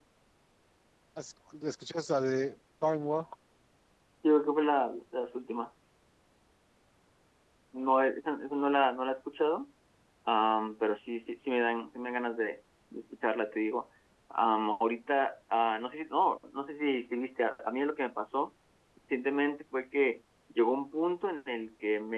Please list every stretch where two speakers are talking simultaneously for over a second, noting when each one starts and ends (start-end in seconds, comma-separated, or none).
none